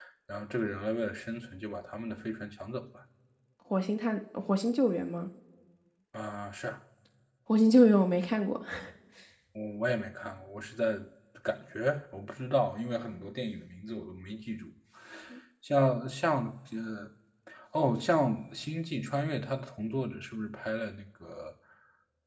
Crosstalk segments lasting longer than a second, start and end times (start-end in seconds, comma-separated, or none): none